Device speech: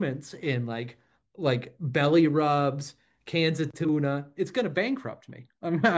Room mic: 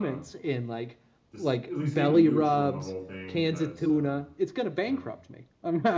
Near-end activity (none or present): present